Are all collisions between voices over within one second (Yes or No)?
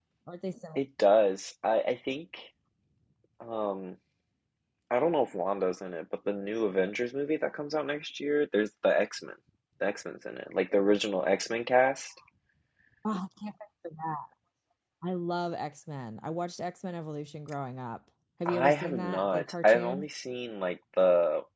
No